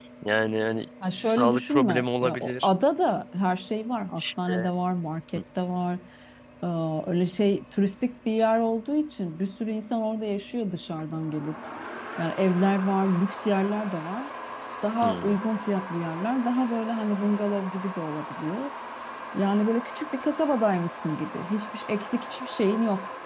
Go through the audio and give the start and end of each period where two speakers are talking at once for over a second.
1.2-2.7

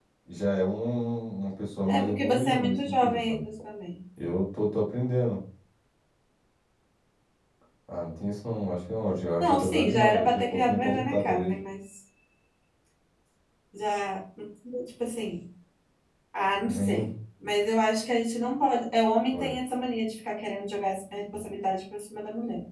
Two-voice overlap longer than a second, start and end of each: 1.9-3.5, 9.4-11.5

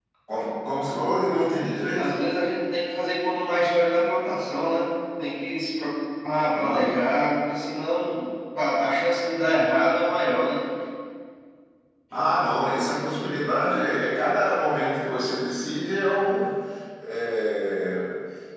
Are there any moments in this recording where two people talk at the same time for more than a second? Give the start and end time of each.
none

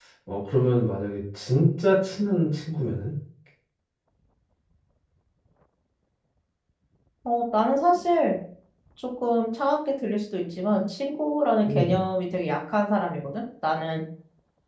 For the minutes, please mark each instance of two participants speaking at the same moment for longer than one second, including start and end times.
none

